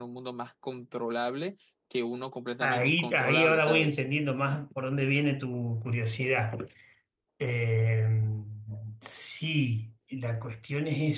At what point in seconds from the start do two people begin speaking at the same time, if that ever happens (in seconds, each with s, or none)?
2.6 s